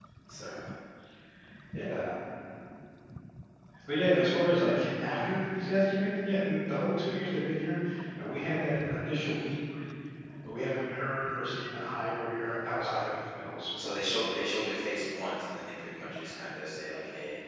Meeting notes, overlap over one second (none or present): none